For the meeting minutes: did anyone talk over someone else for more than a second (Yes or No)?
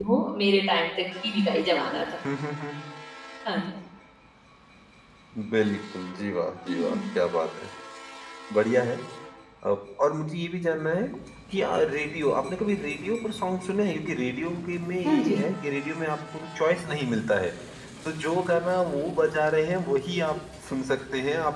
No